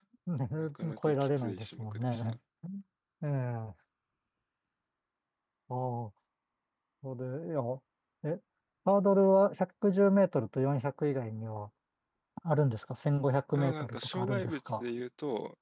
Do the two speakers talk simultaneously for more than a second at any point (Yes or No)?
Yes